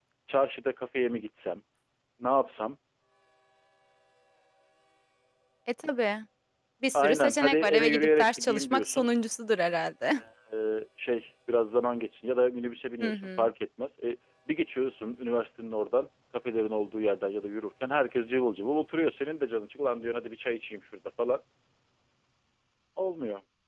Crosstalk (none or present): present